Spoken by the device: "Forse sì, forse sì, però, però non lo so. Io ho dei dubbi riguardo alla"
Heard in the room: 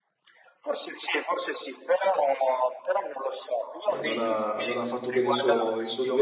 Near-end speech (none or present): present